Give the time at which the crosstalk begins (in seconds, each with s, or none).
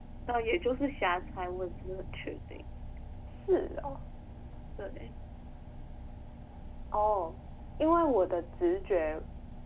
none